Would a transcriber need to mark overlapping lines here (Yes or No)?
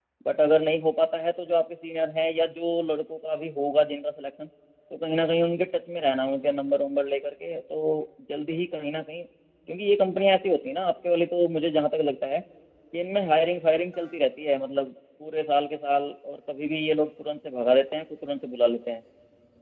No